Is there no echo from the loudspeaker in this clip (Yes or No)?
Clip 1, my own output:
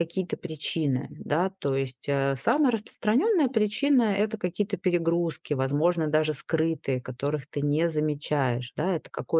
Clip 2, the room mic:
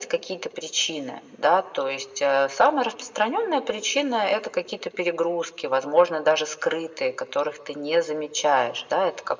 No